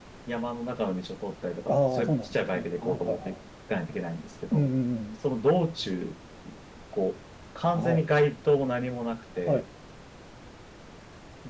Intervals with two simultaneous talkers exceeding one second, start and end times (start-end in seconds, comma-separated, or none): 1.7-3.4